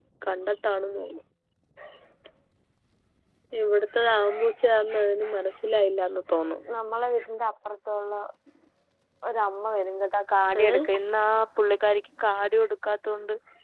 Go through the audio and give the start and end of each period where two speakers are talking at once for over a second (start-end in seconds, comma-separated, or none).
none